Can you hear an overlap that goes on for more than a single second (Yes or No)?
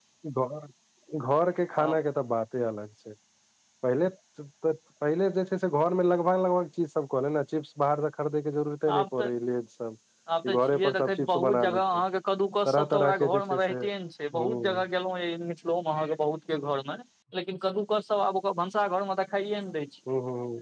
Yes